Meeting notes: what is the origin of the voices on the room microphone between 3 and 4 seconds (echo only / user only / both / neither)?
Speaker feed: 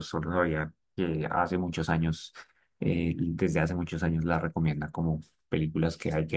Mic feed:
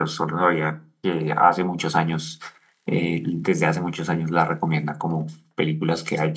echo only